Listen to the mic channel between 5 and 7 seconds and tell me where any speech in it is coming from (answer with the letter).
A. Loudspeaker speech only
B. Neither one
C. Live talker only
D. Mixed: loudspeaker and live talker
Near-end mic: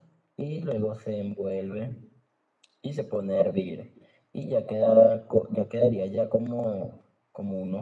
A